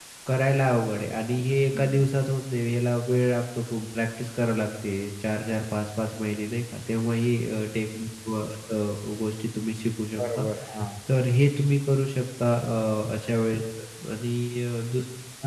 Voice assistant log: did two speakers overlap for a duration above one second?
No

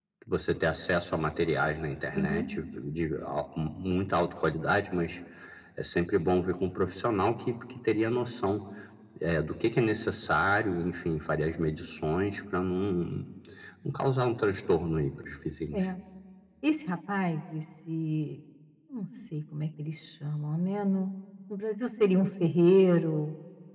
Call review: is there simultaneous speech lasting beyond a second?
No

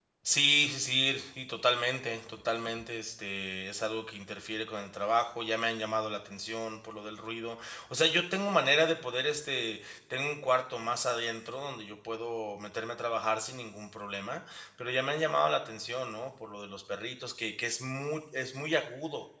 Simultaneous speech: No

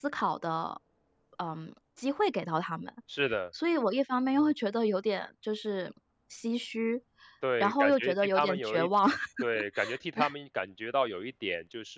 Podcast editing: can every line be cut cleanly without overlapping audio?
No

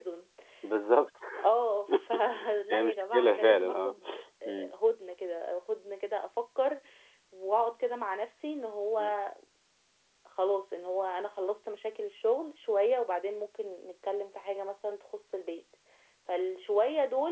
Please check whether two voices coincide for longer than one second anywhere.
Yes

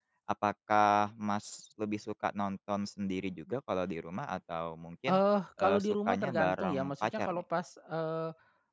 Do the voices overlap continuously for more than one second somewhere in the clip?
Yes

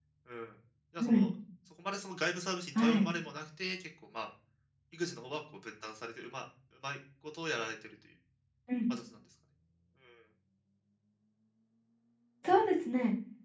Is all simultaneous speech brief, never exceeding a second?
Yes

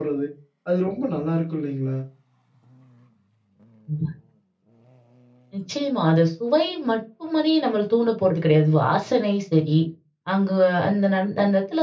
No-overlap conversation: Yes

